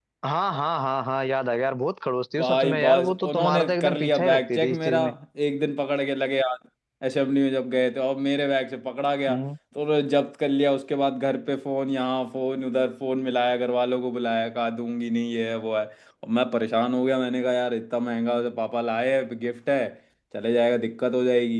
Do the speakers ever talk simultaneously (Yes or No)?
Yes